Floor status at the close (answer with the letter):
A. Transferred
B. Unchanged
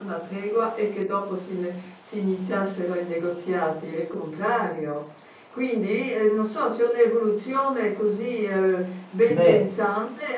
B